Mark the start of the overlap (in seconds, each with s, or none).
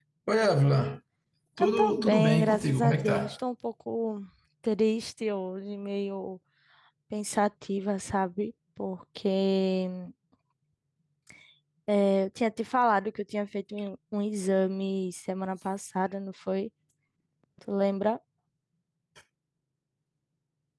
1.8 s